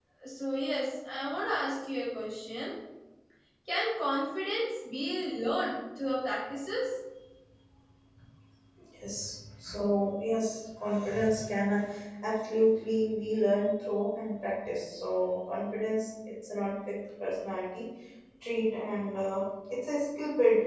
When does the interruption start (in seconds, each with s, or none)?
none